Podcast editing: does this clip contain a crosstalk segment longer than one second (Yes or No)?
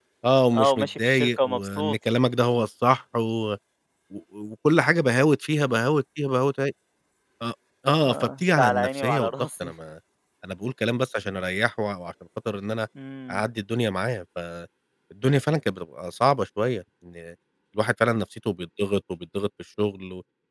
Yes